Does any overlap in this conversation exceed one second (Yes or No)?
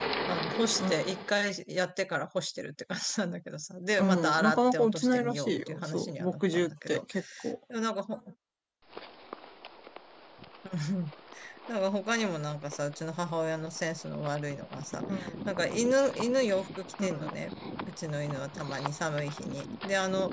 Yes